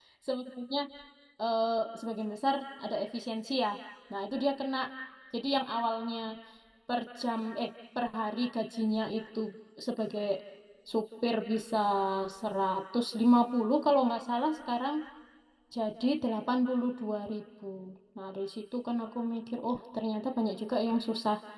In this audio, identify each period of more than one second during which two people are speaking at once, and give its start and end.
none

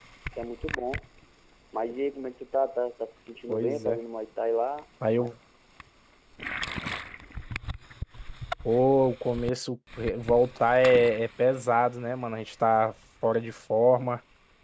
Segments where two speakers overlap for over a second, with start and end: none

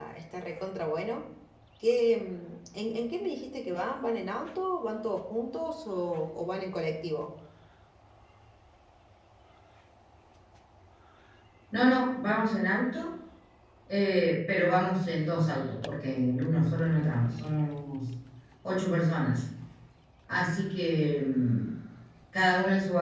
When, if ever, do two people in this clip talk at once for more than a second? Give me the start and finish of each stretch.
none

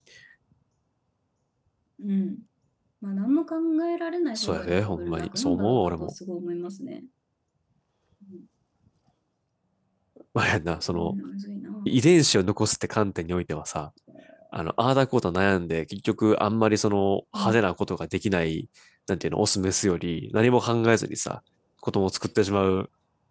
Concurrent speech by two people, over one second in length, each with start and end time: 4.3-6.1

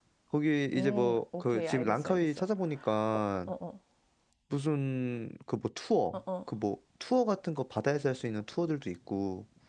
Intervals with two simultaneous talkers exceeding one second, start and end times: 0.7-2.3

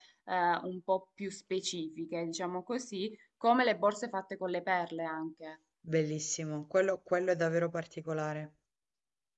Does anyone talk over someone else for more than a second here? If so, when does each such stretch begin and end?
none

